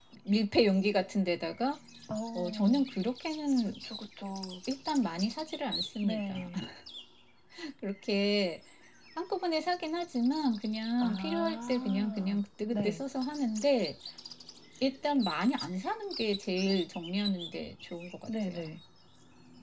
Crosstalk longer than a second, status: present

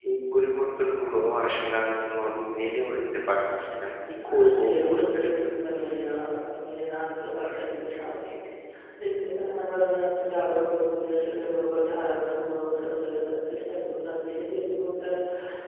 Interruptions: present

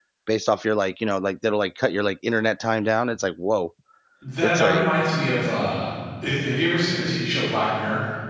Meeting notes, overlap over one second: none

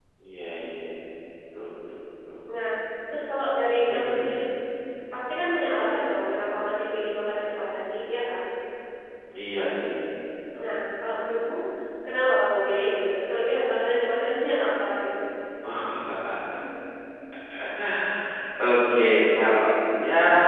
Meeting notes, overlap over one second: none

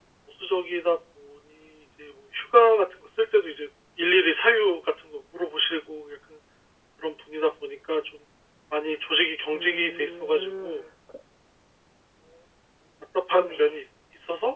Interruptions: present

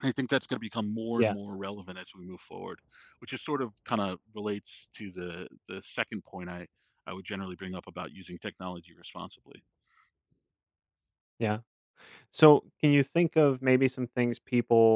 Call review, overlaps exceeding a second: none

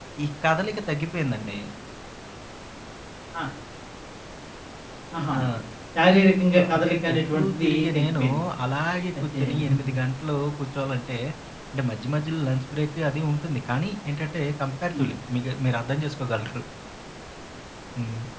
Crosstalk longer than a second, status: present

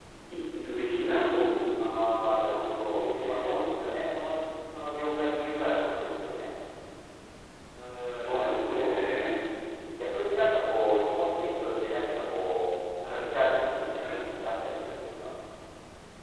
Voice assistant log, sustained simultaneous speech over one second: present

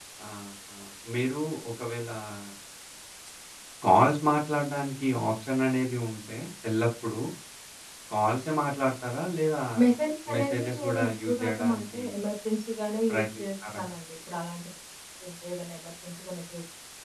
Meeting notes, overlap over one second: present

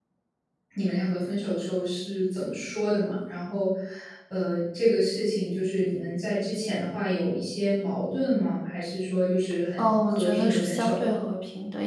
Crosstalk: present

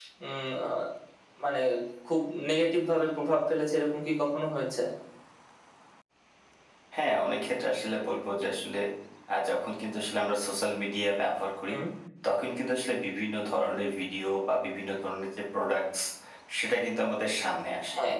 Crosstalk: none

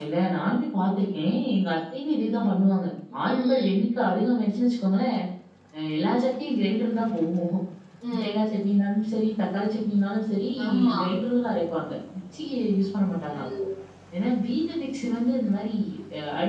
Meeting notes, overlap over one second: none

